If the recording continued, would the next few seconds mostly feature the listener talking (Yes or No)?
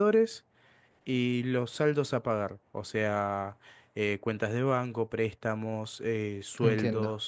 Yes